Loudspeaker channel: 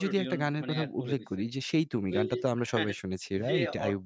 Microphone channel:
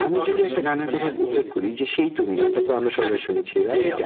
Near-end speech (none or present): none